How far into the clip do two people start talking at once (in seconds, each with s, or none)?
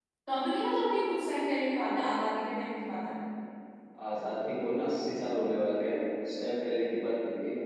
none